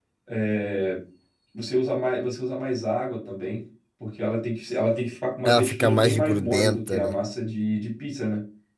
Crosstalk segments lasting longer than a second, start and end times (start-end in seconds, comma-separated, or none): 5.5-7.2